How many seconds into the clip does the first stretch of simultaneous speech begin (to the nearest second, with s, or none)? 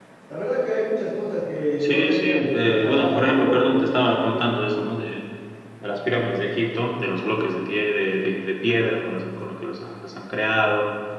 2 s